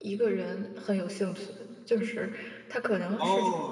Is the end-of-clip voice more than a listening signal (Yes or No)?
Yes